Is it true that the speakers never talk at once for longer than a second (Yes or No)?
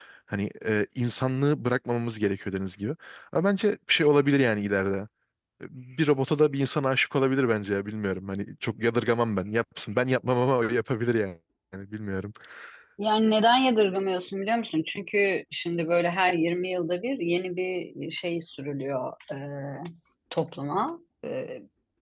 Yes